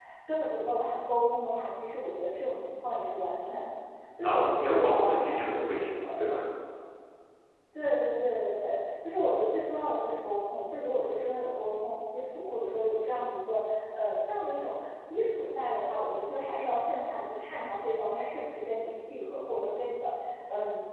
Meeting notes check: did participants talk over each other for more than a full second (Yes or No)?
Yes